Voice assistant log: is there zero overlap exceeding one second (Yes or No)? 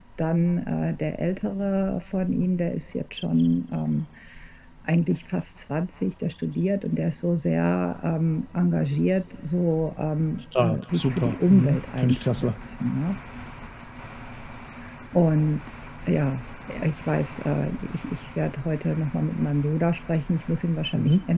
No